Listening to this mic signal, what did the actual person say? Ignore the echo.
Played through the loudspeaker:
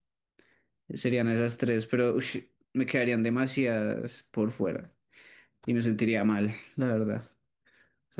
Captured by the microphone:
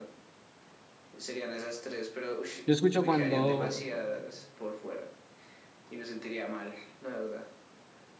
escucho cuando,

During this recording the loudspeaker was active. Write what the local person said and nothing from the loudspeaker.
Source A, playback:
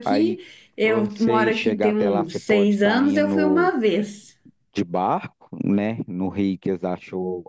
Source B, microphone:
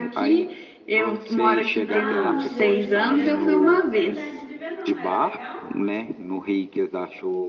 Ah, o Museu de Cera. Eu não tive a oportunidade de ver, não. Era legal?

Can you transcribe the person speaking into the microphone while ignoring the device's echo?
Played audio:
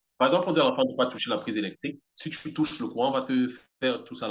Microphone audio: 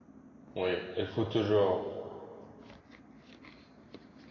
Oui, il faut toujours.

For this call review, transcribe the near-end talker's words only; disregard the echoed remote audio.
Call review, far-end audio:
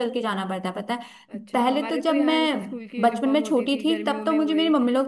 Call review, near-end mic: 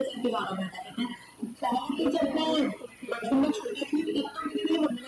none

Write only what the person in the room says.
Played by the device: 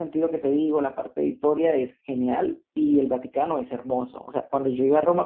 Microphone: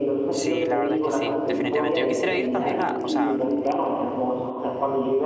sí, la verdad es que sí, definitivamente. Yo quisiera ir también a, o sea,

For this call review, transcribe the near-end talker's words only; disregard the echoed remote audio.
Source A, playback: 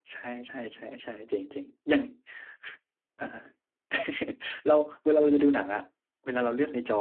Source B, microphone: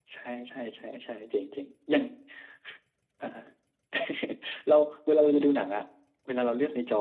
none

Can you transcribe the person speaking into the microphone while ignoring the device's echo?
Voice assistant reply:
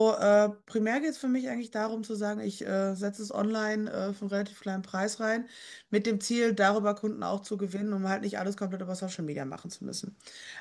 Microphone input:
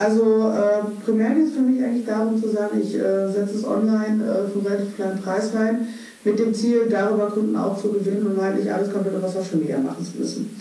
none

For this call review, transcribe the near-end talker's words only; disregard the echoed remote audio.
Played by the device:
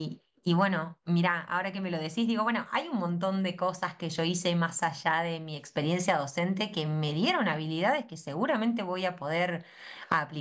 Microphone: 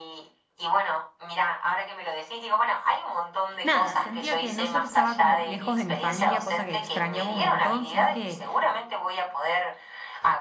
nada, sentía que no solo estaba como lejos de mi familia, cosa que extrañaba un montón, sino que

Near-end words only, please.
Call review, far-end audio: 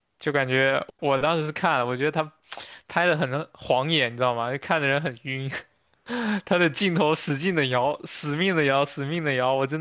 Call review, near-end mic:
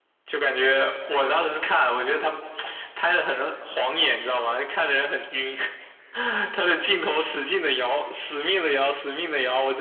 none

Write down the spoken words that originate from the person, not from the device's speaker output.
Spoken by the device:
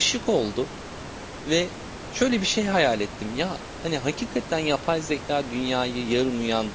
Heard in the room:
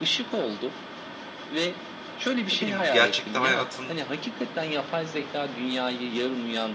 ne bileyim gerçekte hayatın

